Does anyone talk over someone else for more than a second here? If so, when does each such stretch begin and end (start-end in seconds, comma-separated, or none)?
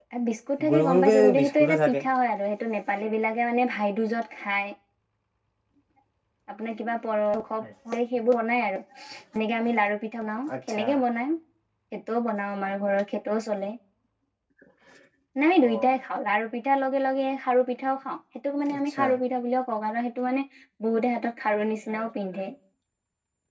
0.7-2.0